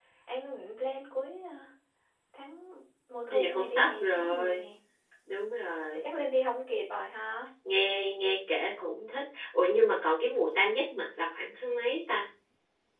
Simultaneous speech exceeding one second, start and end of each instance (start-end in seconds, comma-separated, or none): 3.3-4.7